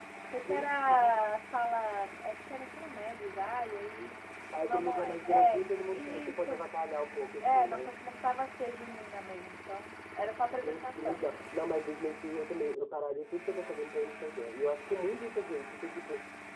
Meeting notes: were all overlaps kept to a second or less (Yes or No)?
No